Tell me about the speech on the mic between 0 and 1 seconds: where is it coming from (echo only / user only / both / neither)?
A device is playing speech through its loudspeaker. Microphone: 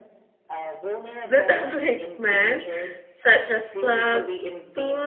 echo only